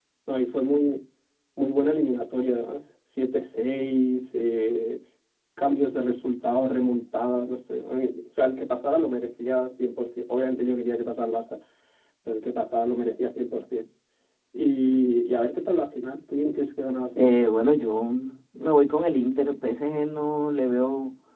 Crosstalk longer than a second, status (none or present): none